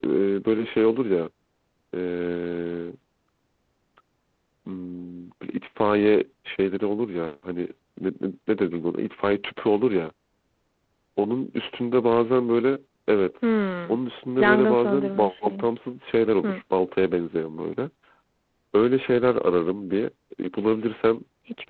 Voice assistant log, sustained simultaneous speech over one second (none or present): present